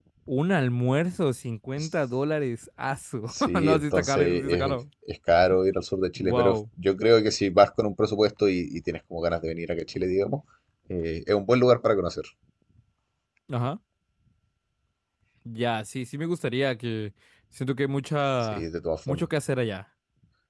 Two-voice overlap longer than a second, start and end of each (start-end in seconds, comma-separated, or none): 3.3-4.8